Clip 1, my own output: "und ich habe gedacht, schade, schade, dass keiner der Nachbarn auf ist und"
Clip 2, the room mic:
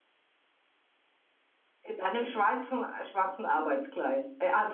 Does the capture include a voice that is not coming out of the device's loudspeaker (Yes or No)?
Yes